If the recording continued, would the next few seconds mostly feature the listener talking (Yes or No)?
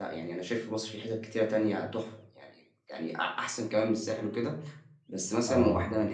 No